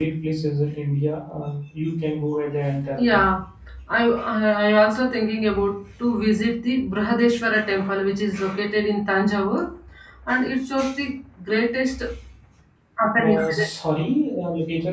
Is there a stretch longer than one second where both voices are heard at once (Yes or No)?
No